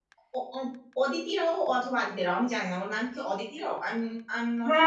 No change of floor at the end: No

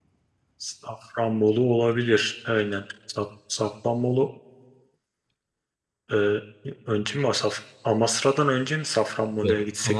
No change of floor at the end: No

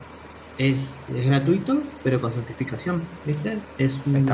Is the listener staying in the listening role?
No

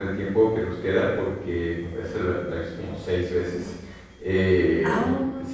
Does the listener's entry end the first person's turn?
No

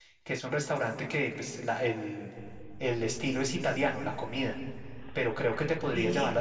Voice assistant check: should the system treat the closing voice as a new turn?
No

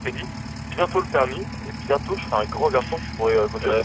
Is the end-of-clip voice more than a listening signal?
Yes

